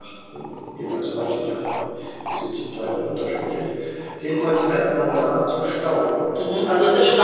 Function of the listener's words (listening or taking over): taking over